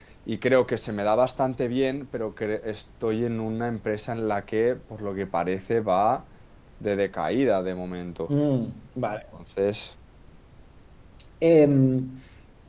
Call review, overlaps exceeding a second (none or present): none